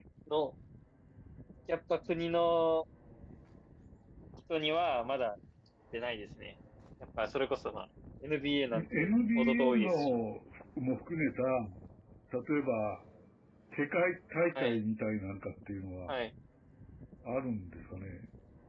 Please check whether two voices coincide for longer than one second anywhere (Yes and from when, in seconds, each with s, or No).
Yes, from 8.7 s